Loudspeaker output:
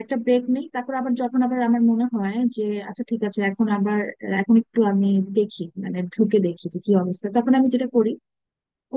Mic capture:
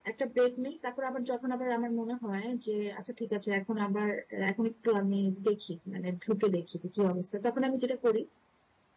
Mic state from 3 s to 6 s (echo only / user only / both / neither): echo only